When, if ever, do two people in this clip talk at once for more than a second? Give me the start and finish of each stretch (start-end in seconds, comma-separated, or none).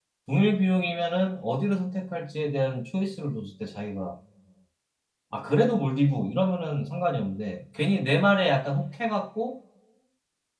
none